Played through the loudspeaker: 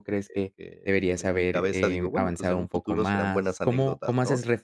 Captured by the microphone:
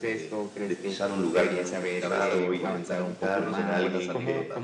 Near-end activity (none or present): present